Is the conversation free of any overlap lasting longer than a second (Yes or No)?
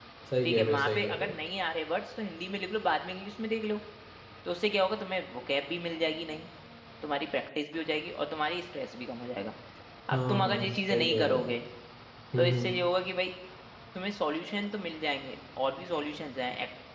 No